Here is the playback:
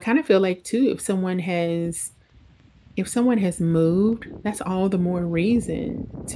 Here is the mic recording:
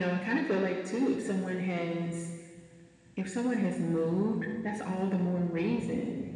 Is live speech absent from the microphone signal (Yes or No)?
Yes